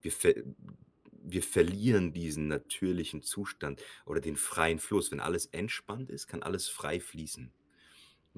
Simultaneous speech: No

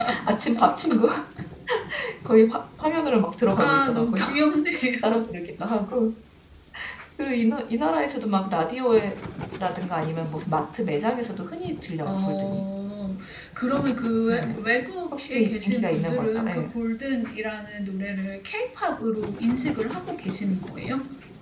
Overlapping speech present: Yes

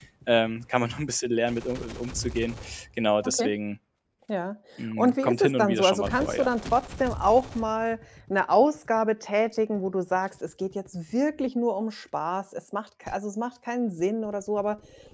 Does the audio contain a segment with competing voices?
Yes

